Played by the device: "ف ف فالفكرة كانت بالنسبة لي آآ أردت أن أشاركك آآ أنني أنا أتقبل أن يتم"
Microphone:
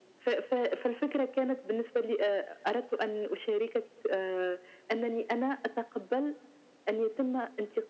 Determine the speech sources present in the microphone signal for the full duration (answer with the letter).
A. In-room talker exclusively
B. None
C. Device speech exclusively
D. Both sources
C